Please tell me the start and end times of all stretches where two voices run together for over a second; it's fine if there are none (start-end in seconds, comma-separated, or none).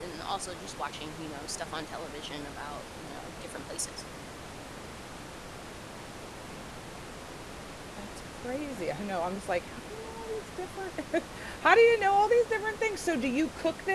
none